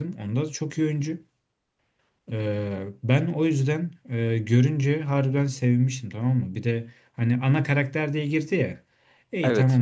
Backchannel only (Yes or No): Yes